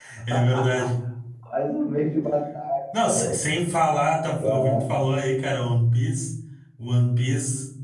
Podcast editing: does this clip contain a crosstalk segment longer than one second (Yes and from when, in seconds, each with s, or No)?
No